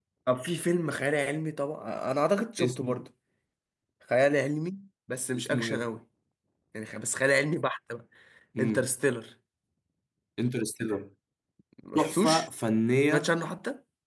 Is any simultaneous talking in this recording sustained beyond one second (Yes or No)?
No